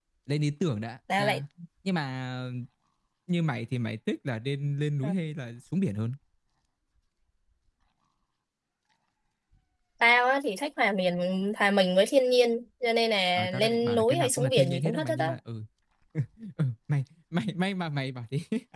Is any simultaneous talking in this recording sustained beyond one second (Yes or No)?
Yes